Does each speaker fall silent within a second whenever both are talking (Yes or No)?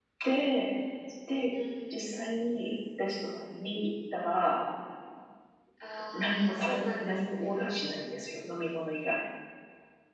No